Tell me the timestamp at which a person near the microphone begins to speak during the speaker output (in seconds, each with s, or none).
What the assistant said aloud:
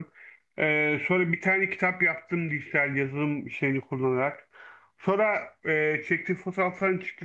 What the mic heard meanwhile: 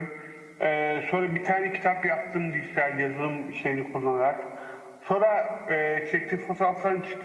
none